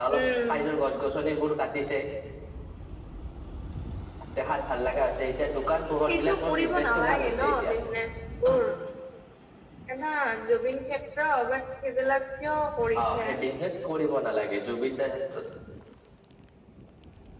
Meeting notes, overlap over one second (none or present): present